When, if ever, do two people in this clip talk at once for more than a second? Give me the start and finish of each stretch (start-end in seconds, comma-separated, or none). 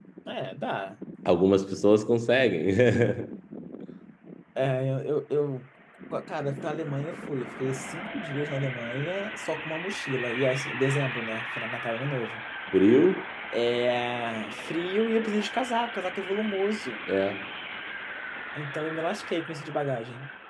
none